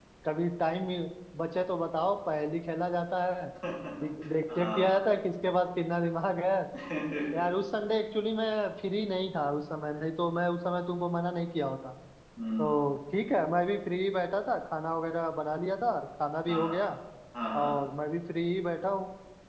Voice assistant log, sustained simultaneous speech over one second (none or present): none